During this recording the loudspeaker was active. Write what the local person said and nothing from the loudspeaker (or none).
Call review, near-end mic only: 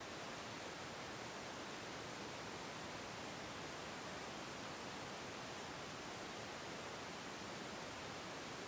none